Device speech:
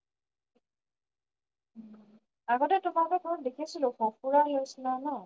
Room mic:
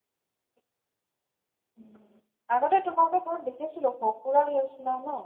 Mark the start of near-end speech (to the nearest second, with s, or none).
none